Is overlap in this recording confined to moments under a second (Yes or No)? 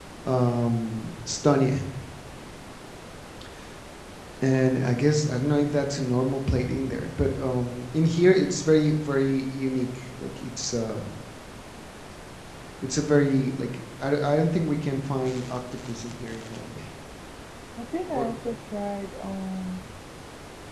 Yes